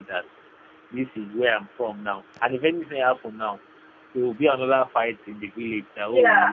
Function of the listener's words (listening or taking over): taking over